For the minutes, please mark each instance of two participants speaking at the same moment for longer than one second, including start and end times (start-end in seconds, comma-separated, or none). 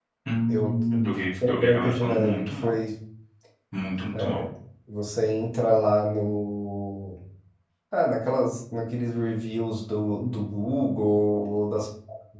1.5-2.7